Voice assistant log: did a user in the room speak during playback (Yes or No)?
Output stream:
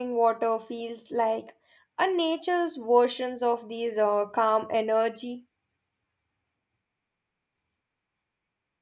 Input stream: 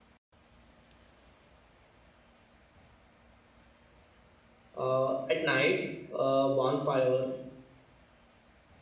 Yes